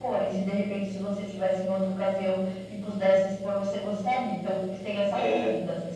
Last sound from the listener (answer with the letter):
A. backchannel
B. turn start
B